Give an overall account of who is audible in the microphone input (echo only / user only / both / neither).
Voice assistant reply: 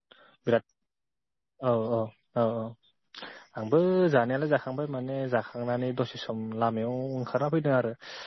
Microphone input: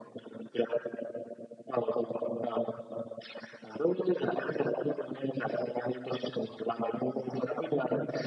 echo only